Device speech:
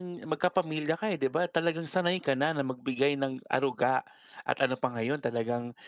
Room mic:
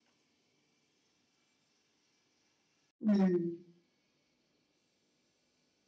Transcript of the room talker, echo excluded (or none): hmm.